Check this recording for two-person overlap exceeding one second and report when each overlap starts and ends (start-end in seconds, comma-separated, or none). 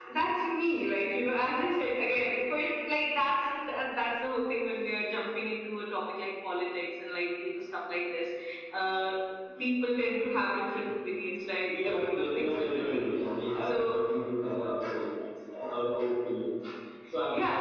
11.7-13.0